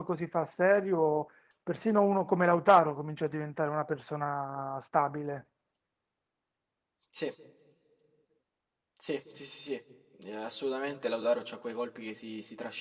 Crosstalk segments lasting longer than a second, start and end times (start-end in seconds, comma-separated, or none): none